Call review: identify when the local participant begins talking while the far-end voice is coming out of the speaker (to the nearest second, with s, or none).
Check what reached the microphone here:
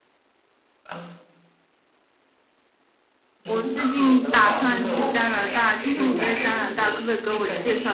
3 s